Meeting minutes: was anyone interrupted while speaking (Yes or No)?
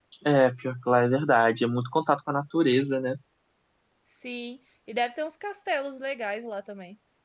No